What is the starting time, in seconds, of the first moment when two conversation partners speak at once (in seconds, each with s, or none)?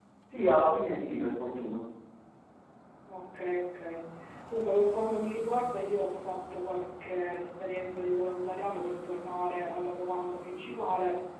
none